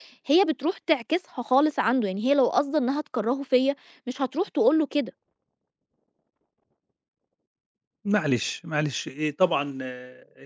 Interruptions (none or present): none